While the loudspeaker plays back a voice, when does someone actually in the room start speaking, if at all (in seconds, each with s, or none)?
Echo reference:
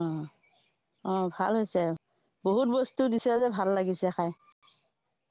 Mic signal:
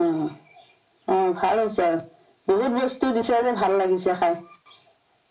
none